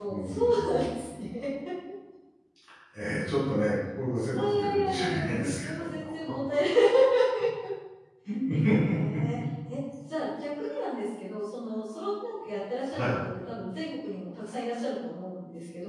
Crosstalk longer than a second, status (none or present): present